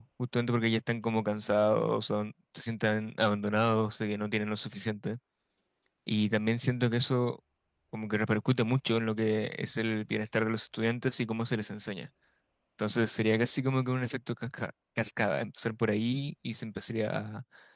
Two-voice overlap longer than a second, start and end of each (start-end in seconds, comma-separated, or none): none